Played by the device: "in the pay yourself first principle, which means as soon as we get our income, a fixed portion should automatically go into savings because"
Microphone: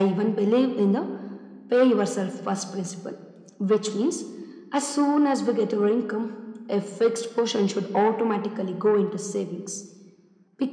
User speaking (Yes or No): No